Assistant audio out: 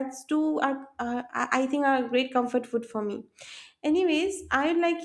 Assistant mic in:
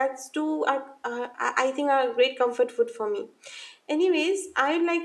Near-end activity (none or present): none